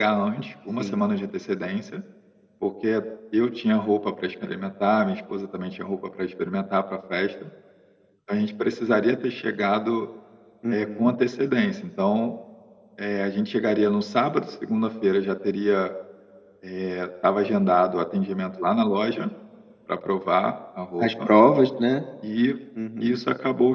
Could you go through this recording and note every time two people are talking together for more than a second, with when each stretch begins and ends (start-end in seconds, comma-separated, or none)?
none